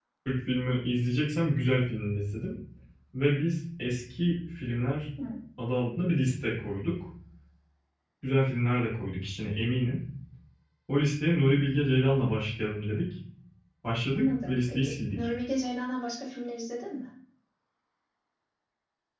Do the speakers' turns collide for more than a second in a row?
Yes, from 14.2 s

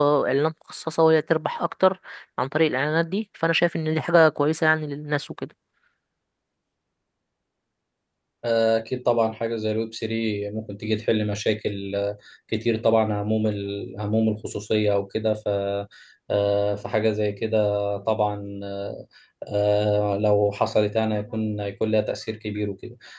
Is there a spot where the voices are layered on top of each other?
No

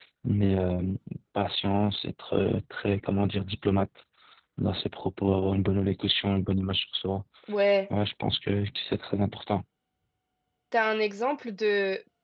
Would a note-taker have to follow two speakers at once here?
No

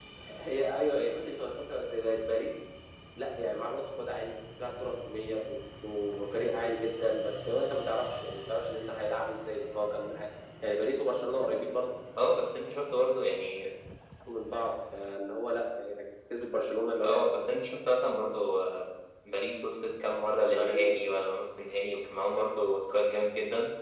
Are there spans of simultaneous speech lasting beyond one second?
No

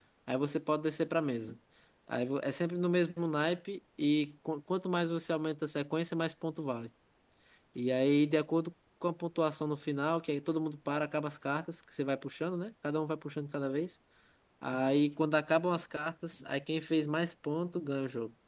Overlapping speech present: No

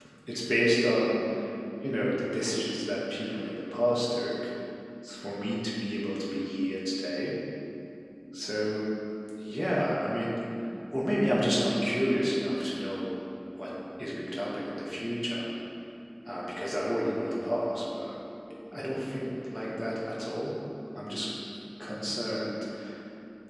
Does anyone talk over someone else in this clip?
No

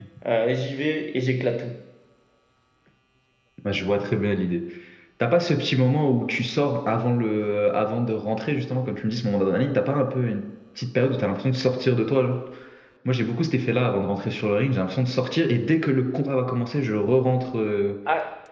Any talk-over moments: No

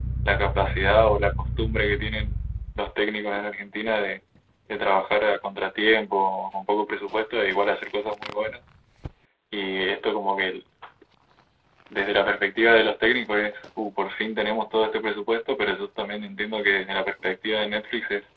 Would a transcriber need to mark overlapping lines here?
No

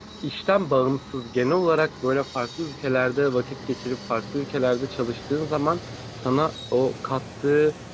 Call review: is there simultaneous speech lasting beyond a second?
No

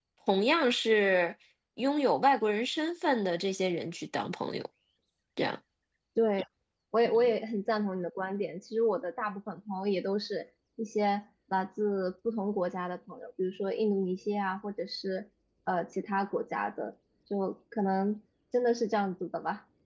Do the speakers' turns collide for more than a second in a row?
No

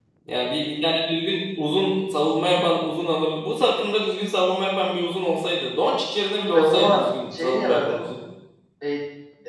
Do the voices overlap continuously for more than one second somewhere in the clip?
Yes, from 6.5 s

